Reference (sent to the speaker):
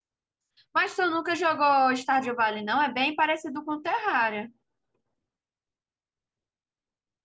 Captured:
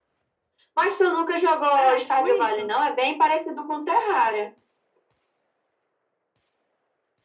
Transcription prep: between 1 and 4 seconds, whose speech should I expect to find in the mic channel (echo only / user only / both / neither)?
both